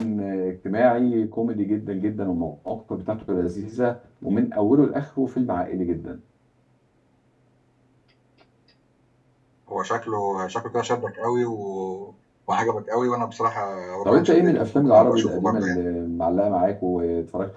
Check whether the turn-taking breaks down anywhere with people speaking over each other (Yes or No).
Yes